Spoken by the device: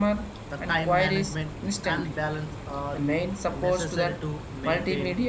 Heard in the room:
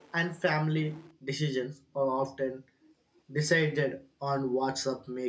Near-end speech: present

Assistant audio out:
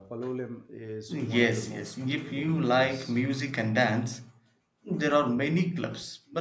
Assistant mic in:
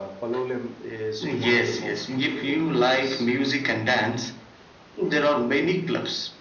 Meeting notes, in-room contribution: none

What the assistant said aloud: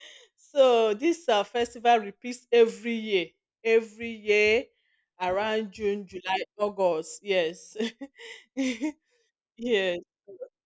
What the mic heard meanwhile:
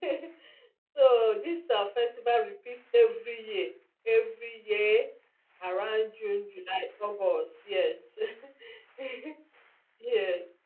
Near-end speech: none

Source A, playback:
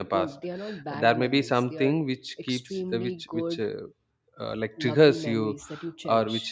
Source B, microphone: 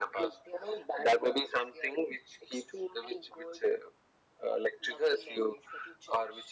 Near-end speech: none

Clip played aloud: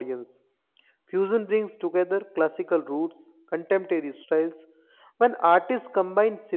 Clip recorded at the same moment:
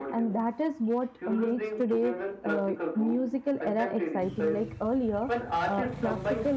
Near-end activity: present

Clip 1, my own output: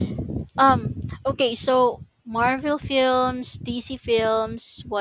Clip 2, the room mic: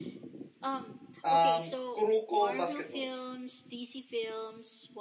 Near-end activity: present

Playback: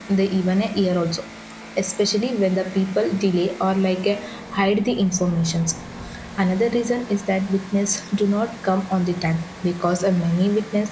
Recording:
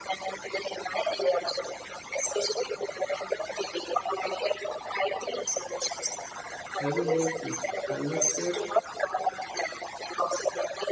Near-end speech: present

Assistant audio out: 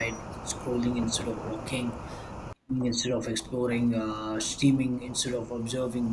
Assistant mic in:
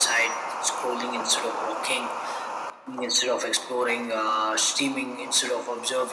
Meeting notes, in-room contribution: none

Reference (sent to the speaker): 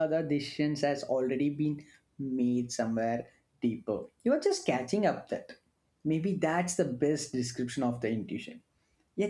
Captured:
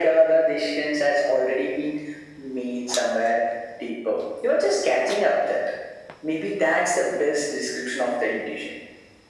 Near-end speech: none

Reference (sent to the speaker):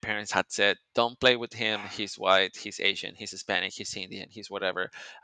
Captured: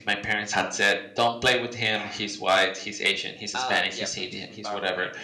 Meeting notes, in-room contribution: present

